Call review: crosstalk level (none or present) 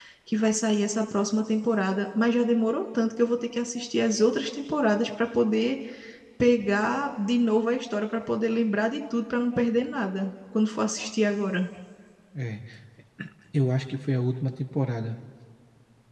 none